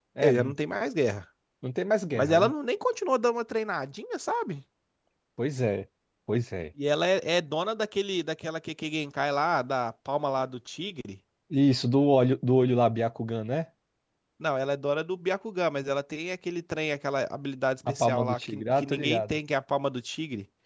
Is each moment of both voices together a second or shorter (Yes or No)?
No